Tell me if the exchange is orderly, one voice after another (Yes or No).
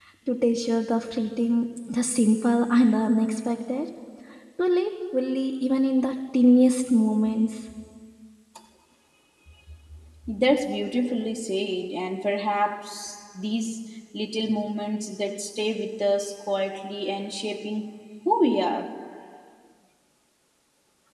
Yes